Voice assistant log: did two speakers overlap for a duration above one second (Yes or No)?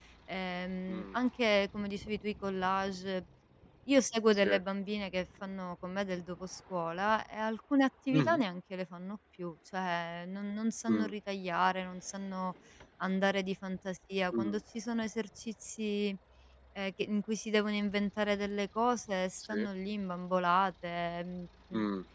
No